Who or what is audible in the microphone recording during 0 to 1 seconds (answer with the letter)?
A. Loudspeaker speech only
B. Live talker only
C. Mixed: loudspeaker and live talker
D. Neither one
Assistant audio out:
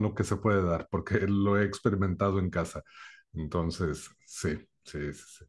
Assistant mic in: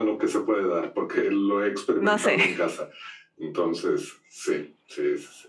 A